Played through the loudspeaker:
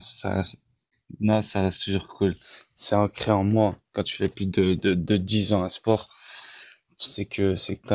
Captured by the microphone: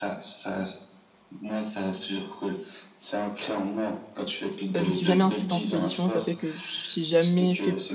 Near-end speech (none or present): present